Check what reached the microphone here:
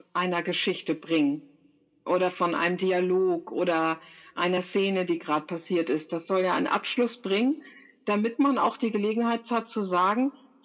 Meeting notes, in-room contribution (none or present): none